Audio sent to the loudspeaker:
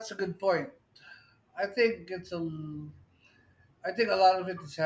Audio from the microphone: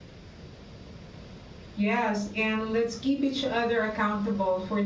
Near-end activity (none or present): present